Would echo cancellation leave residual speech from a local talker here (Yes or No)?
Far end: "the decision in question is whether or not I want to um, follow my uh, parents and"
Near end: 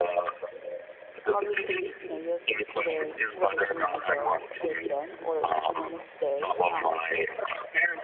Yes